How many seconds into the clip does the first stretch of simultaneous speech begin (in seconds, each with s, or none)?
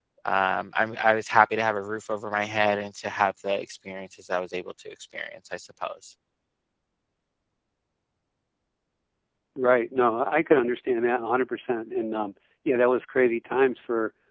none